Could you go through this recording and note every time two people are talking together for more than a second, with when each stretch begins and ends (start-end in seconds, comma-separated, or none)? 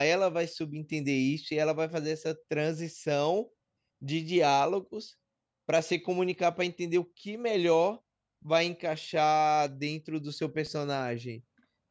none